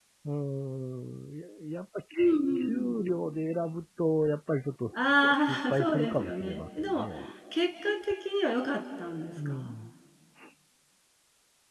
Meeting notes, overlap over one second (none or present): present